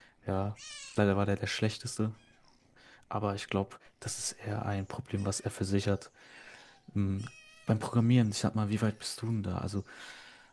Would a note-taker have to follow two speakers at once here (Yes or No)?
No